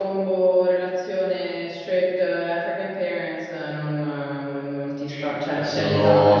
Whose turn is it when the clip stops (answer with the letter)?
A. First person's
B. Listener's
B